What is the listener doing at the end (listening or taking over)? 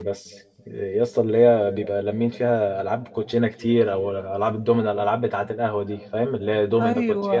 taking over